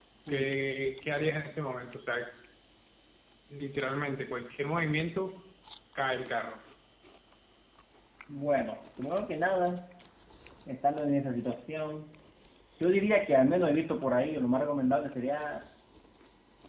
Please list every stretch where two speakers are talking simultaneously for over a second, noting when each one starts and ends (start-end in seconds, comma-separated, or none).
none